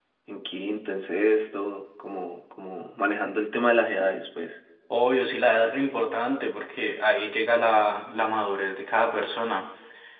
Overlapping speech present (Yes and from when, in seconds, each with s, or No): No